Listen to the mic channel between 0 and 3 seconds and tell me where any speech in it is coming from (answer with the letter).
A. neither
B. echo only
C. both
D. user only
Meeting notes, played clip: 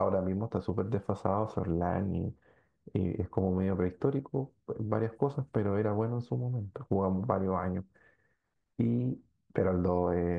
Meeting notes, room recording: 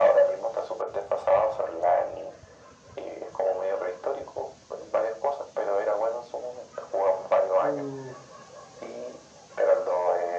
B